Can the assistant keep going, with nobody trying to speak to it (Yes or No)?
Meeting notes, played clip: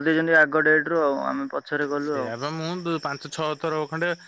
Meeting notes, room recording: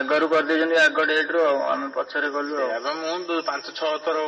Yes